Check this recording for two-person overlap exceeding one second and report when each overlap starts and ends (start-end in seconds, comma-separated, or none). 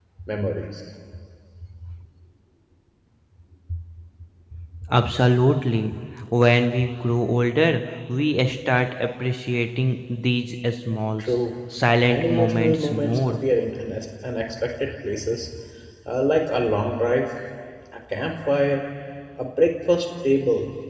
12.0-13.4